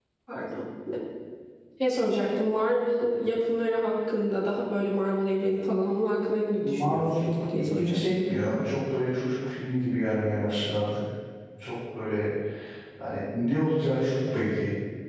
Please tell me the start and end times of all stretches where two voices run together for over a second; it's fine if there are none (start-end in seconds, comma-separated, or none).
6.6-8.0